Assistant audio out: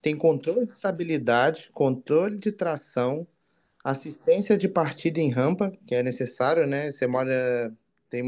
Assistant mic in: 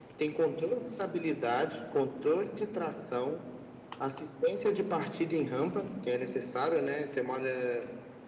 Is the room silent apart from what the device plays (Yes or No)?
Yes